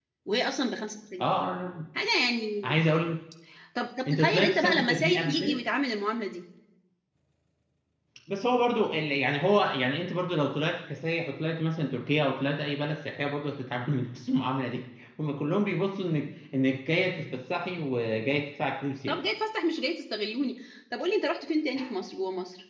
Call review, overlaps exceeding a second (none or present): present